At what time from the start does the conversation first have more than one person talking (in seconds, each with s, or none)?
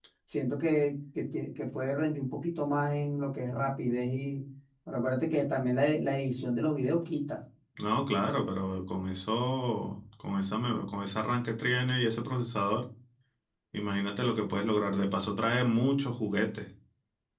none